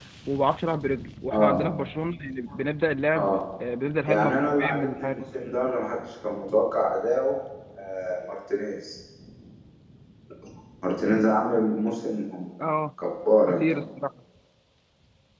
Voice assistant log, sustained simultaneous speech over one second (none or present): present